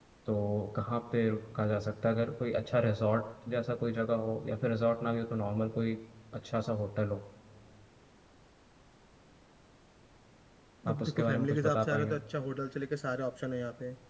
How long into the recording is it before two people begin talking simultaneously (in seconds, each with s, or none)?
10.9 s